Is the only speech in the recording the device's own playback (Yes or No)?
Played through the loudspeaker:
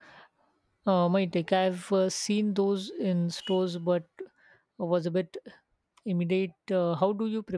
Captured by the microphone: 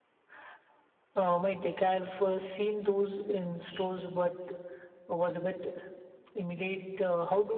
Yes